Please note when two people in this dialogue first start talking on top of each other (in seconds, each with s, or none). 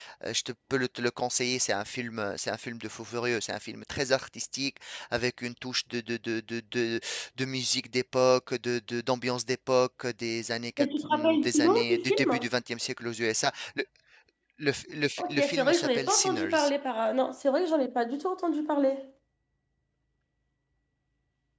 10.8 s